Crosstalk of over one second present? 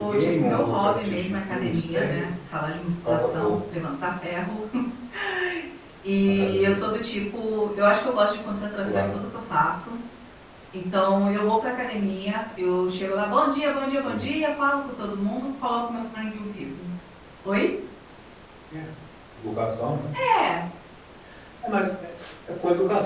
Yes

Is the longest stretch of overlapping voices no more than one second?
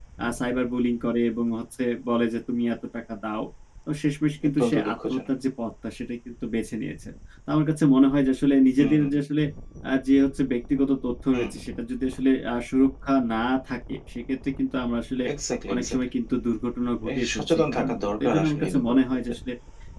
No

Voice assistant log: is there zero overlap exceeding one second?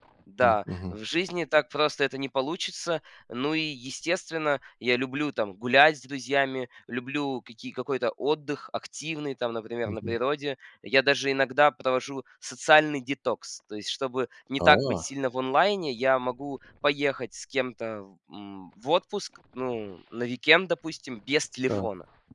Yes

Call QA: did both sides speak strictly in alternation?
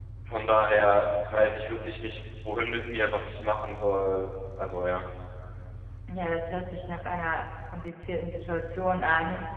Yes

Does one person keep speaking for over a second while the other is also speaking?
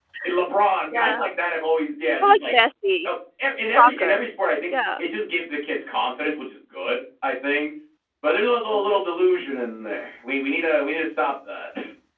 No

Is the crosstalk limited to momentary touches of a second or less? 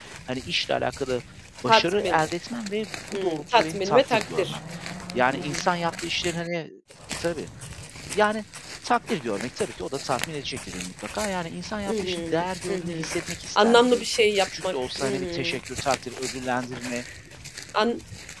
No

